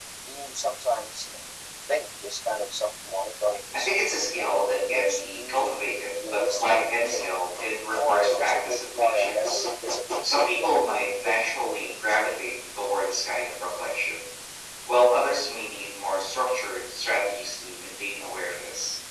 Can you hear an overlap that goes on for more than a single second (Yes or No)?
Yes